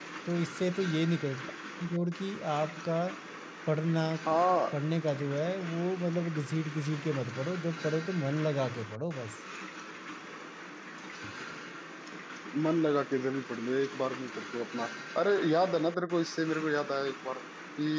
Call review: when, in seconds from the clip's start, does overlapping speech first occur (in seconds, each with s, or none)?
none